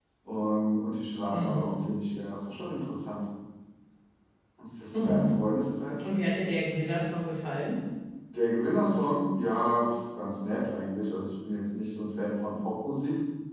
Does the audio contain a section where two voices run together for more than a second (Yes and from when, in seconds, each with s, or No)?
No